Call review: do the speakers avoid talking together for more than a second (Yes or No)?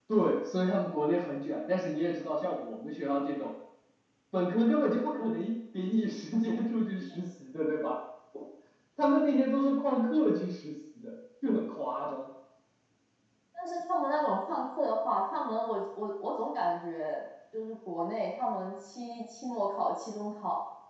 Yes